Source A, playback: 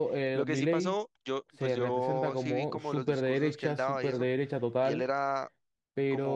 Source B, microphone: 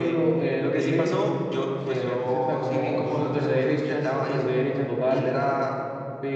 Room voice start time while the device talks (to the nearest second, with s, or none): none